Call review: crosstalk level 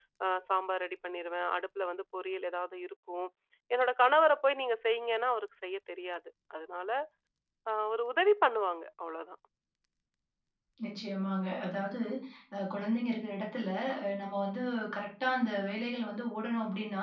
none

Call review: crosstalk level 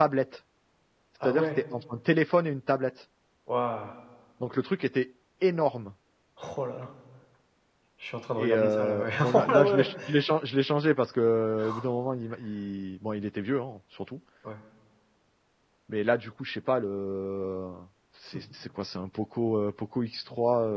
present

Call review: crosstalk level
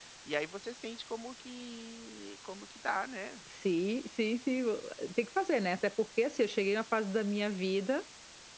none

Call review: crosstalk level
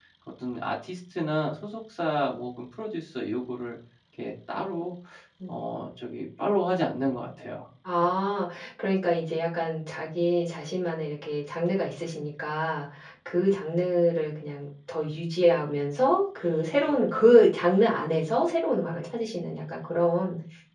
none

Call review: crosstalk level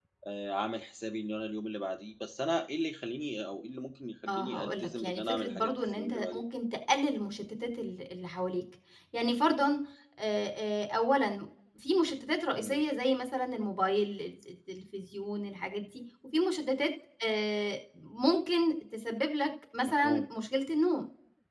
present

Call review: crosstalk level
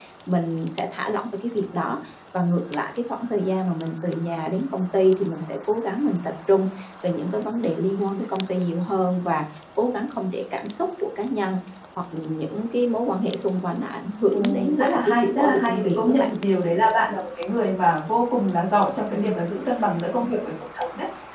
present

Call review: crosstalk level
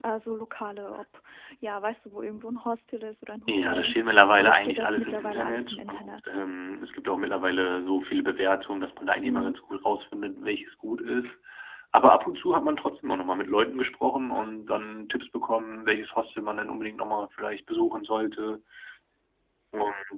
present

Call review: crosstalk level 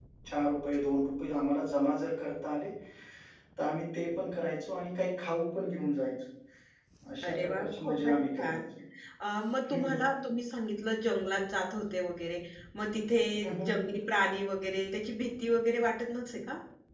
present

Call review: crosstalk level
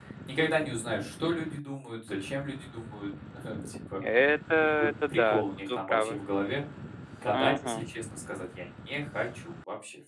present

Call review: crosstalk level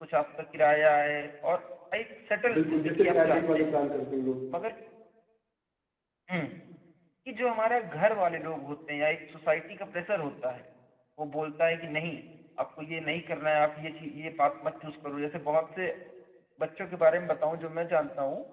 present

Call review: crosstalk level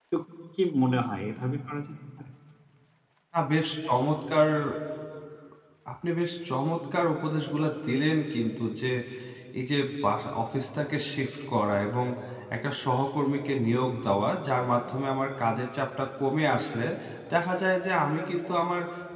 none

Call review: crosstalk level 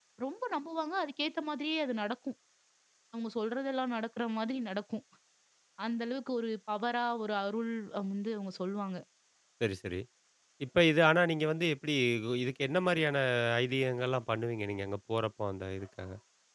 none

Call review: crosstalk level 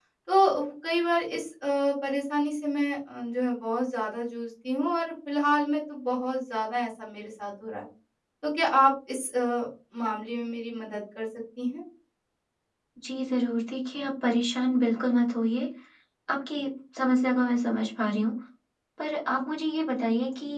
none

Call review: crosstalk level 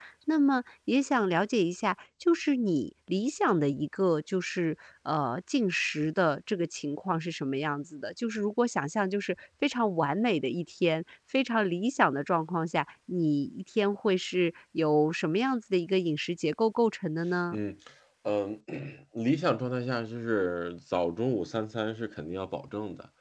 none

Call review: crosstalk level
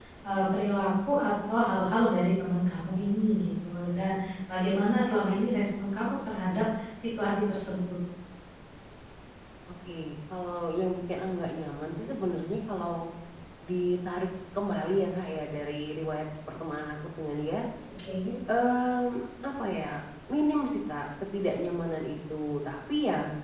none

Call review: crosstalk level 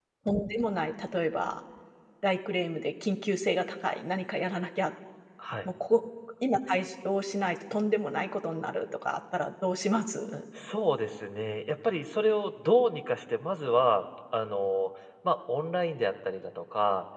none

